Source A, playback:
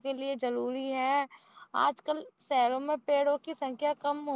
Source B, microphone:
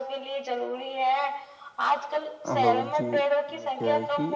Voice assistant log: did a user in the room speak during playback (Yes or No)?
Yes